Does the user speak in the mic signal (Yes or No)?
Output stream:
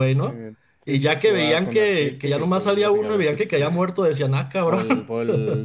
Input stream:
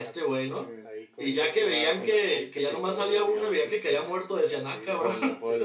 Yes